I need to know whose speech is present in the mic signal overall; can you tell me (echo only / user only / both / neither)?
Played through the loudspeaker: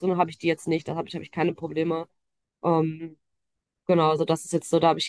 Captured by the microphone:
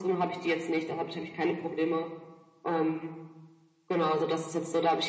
echo only